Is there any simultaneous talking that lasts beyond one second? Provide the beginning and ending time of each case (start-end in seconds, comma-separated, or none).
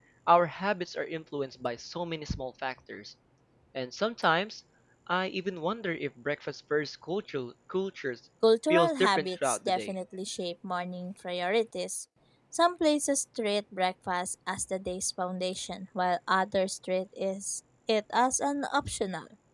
8.7-9.9